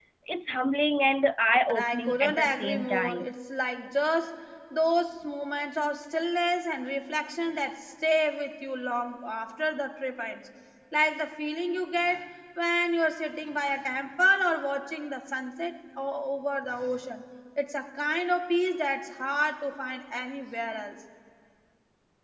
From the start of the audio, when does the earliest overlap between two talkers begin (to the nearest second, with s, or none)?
2 s